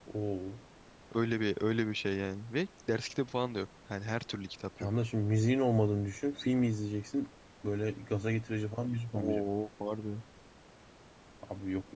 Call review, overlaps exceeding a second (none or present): none